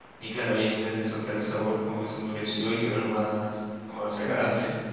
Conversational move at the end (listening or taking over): taking over